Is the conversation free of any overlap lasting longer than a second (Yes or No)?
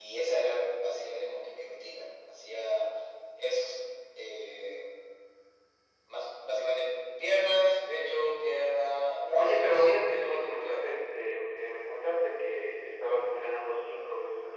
No